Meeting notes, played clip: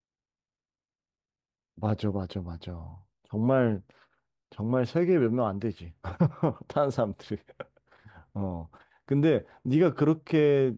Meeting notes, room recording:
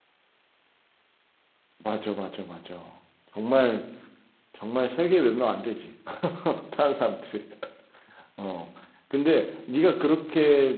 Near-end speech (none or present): none